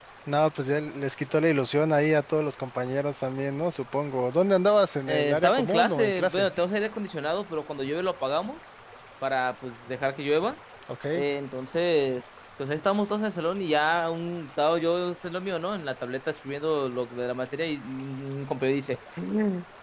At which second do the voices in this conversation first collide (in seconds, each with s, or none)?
5.1 s